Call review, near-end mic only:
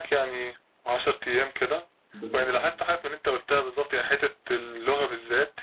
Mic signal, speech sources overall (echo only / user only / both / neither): both